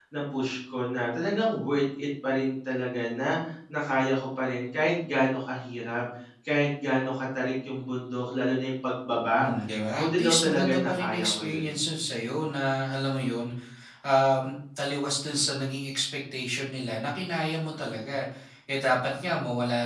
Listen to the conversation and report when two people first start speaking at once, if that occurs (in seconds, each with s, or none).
9.9 s